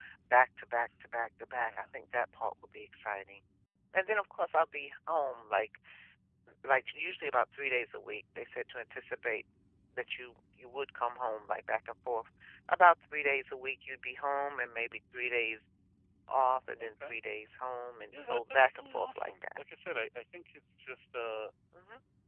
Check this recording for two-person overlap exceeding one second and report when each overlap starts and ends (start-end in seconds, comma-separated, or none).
18.2-19.6